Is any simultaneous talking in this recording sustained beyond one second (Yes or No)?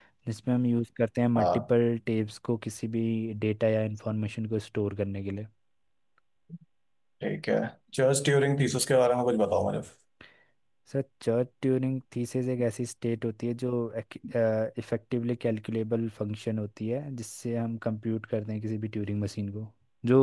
No